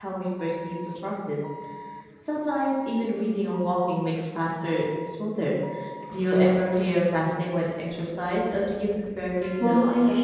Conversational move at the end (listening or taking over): taking over